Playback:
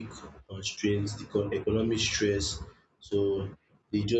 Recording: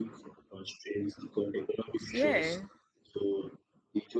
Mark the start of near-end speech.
2.1 s

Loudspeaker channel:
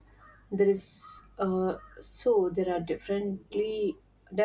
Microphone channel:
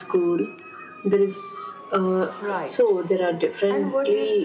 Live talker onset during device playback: 2.4 s

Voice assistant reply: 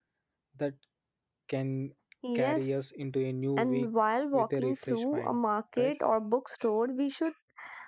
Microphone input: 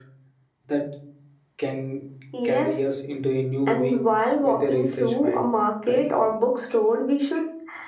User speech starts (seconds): none

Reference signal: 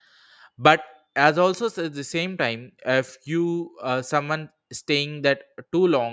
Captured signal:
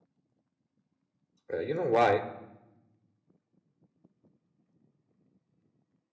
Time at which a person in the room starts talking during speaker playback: 1.5 s

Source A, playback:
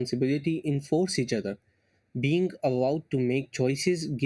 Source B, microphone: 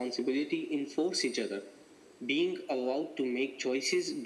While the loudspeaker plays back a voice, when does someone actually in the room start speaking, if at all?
none

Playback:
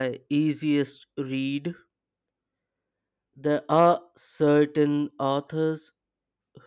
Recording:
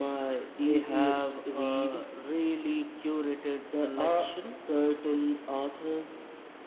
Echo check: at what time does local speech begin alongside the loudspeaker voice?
0.5 s

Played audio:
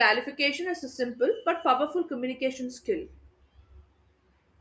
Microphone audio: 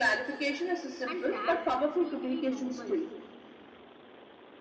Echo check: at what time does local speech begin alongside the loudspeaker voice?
1.1 s

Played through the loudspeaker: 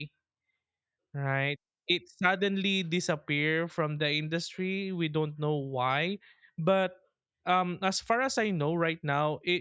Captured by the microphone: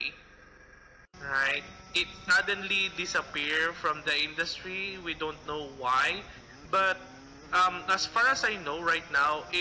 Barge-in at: none

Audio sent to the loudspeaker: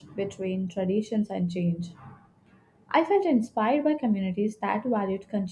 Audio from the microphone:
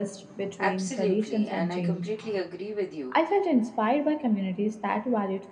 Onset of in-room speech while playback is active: 0.6 s

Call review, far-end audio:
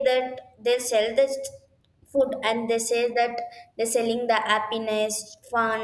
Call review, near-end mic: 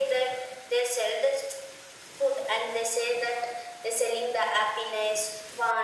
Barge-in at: none

